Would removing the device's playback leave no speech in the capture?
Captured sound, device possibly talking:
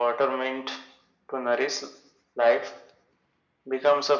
Yes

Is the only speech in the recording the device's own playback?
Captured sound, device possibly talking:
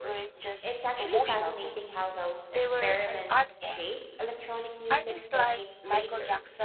No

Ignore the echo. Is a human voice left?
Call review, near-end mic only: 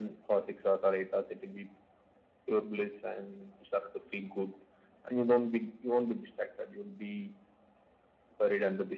No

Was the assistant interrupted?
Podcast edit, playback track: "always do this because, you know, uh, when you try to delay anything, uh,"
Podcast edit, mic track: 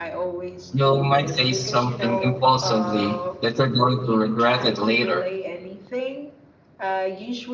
Yes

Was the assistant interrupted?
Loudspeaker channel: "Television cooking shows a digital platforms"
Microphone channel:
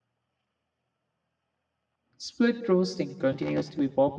Yes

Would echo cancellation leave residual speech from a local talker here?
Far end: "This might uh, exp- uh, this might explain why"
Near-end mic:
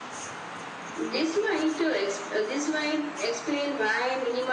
No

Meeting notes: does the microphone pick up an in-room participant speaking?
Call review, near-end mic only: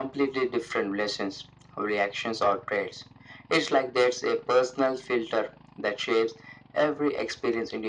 No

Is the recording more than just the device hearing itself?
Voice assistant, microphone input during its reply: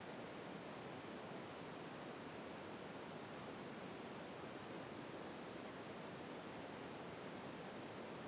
No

